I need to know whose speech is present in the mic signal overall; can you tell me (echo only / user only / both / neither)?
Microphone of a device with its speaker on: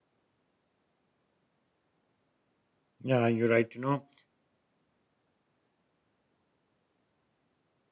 user only